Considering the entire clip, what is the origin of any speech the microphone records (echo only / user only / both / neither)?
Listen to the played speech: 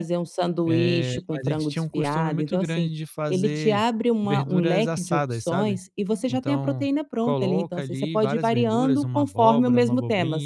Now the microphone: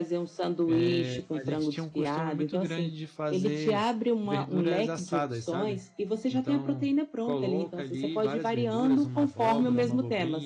both